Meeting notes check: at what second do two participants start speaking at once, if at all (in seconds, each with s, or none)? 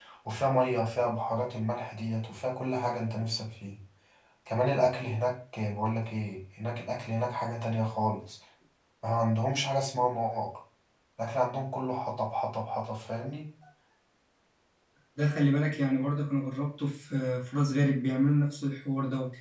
none